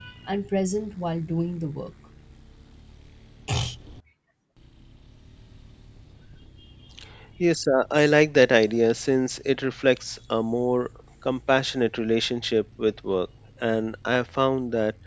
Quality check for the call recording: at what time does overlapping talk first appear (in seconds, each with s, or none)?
none